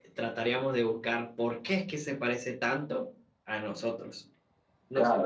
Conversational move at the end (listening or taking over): taking over